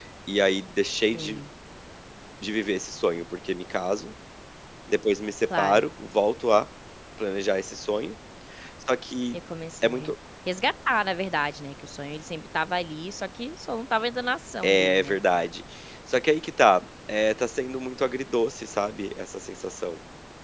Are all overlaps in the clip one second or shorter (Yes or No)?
Yes